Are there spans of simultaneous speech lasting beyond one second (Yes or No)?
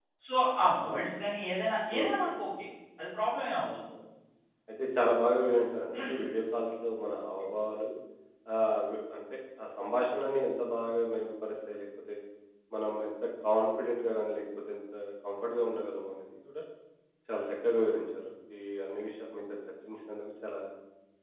No